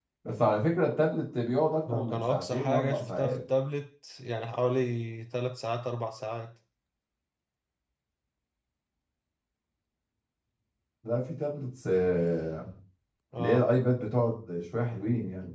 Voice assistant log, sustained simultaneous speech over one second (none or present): present